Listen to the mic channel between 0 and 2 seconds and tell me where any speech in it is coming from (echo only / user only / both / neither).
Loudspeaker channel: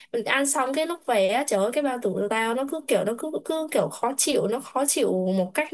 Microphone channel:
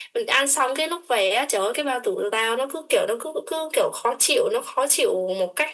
echo only